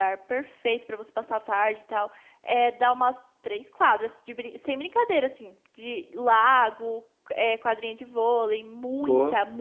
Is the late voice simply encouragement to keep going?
Yes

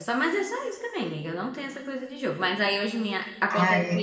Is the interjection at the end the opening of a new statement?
No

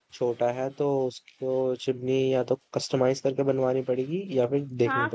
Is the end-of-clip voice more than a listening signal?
Yes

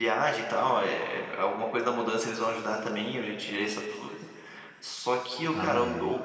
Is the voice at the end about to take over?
No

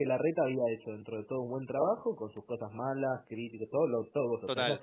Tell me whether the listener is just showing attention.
Yes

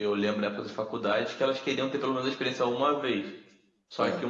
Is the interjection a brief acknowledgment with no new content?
Yes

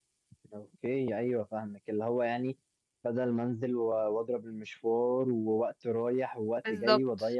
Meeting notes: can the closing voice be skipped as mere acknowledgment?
Yes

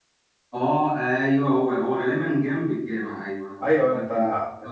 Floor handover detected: Yes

